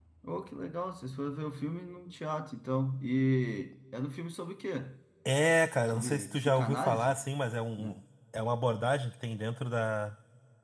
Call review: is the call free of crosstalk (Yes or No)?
No